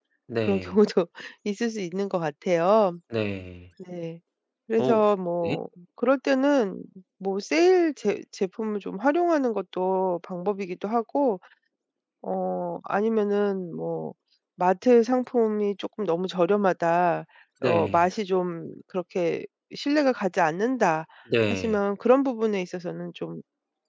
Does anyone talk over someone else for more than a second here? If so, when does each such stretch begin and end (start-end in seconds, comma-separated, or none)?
none